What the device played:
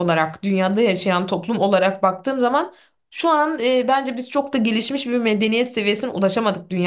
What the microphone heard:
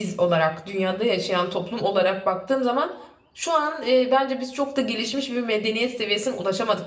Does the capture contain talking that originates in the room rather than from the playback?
No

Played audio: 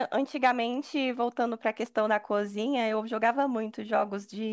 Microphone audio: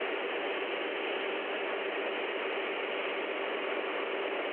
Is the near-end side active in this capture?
No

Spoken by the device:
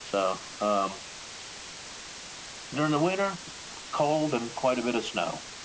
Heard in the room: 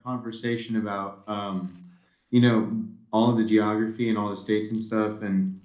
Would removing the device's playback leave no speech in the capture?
No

